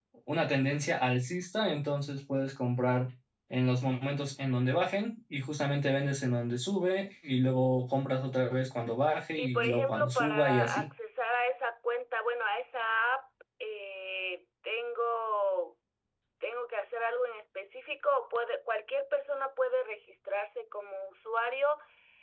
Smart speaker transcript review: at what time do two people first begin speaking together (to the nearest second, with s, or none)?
9 s